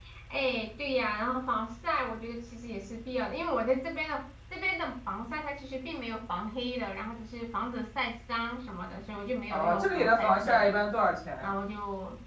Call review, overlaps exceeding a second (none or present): present